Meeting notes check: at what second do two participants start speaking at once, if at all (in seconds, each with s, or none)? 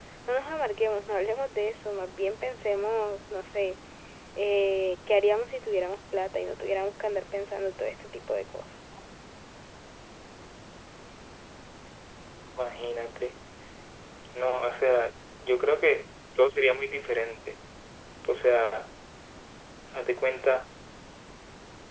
none